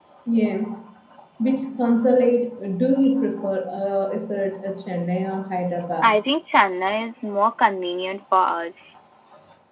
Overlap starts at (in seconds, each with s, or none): none